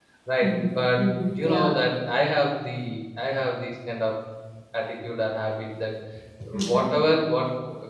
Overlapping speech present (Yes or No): Yes